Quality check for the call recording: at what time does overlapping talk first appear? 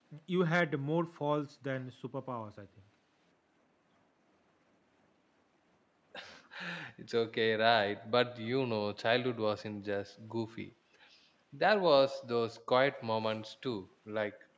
none

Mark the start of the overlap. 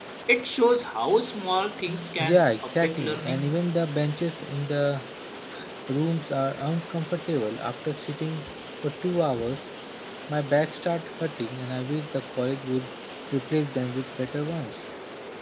2.2 s

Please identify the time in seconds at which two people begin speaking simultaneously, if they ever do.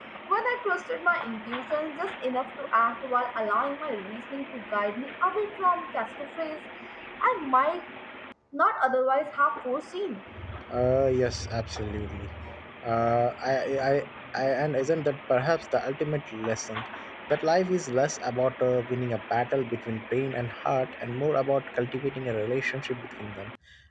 none

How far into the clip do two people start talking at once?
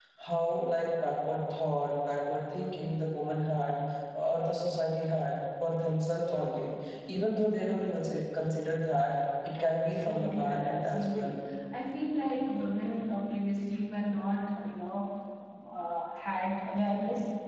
10.1 s

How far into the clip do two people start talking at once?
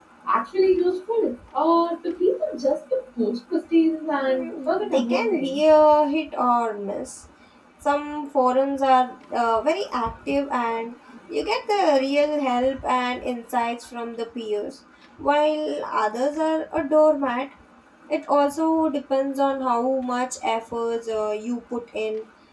4.3 s

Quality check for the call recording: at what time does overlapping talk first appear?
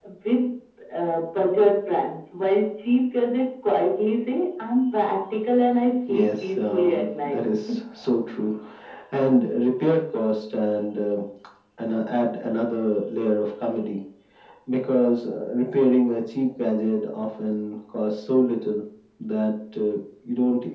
6.1 s

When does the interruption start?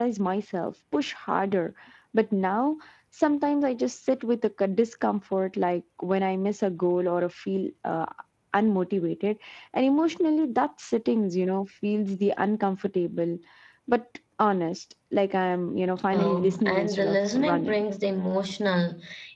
16.1 s

